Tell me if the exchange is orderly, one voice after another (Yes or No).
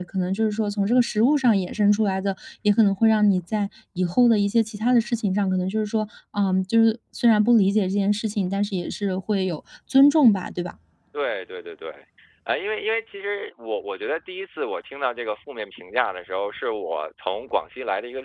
Yes